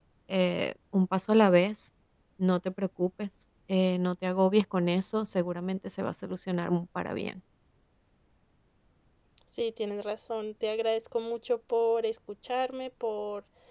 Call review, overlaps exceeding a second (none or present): none